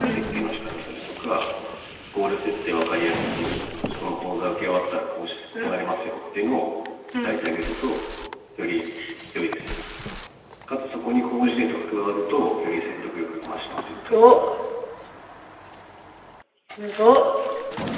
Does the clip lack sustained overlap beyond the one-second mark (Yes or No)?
Yes